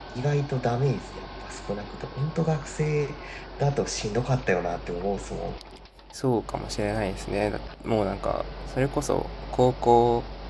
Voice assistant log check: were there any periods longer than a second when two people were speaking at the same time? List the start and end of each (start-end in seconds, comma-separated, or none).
none